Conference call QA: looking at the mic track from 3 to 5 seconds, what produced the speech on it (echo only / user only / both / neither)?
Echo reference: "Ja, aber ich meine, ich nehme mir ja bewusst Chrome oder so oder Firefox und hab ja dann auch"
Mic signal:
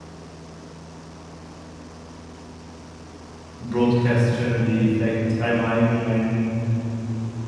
user only